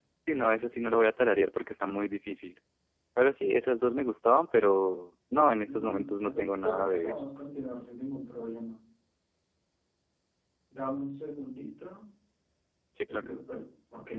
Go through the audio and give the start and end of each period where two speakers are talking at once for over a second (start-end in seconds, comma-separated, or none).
5.6-7.2